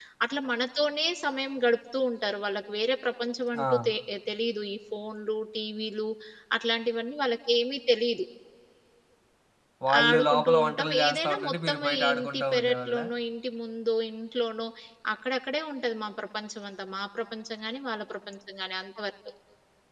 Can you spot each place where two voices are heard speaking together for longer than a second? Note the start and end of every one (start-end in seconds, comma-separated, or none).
10.0-13.1